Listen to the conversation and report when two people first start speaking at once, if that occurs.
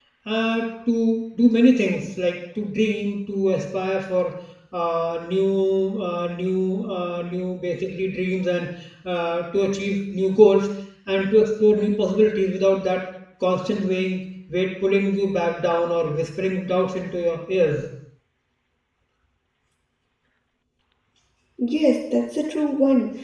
none

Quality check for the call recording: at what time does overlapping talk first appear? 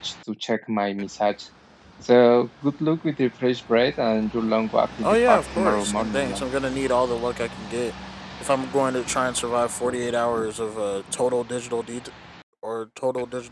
5.0 s

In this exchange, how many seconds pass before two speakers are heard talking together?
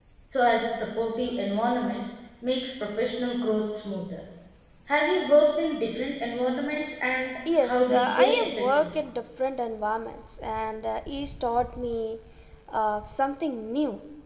7.5 s

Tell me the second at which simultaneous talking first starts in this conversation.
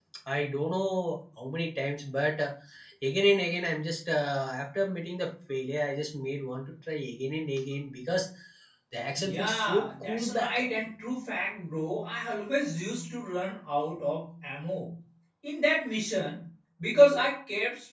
9.2 s

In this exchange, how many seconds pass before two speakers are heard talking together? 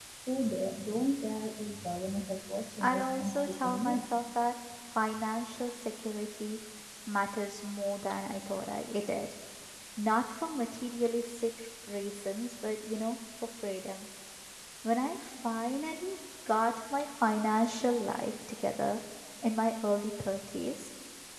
2.8 s

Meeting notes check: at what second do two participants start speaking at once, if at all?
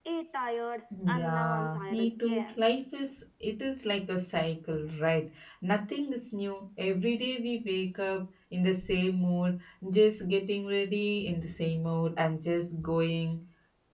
1.1 s

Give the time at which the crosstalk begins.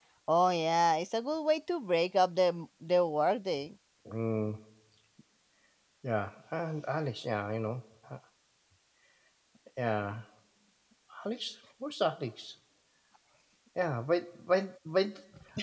none

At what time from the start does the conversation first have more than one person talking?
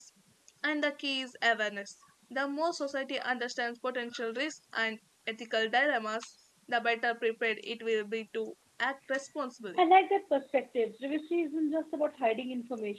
none

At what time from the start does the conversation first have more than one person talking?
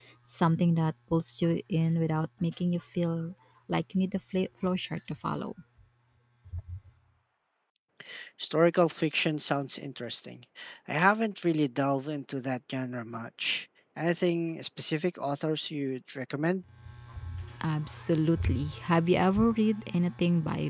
none

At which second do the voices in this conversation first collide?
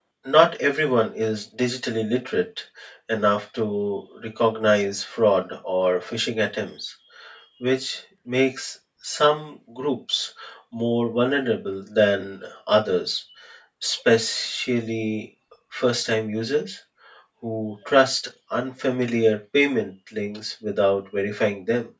none

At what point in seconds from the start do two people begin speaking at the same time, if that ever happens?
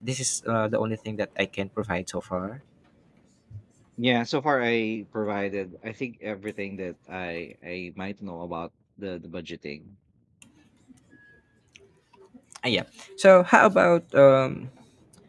none

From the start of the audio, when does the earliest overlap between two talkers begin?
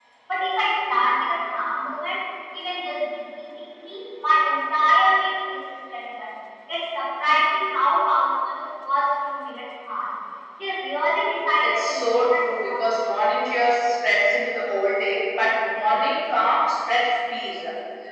11.6 s

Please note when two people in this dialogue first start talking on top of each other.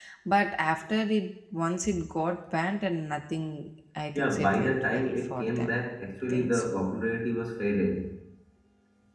4.2 s

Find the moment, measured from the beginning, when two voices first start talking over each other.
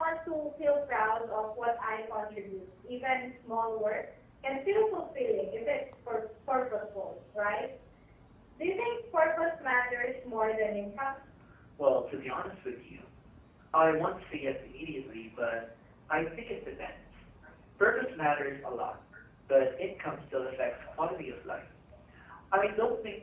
none

